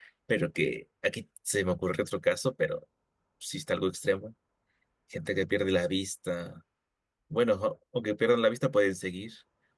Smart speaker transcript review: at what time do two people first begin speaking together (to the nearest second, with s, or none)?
none